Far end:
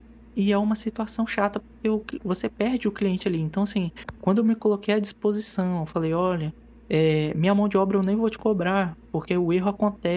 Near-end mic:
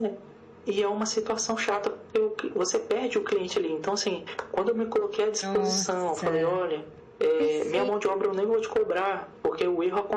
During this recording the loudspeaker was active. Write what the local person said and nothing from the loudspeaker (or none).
Nossa, perfeito.